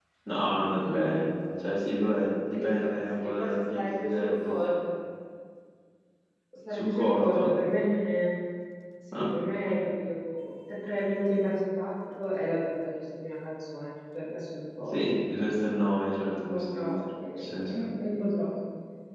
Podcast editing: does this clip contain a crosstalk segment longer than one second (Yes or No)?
Yes